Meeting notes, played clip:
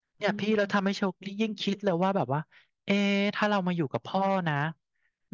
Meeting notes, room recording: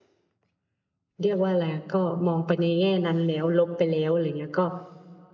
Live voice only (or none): เรียกว่าอะไรก็มองไปในแง่นั้นแล้วลบไปแล้วอะไรเงี้ยก็